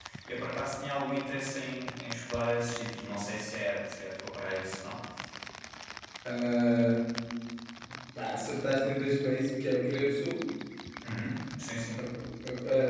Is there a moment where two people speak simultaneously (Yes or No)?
No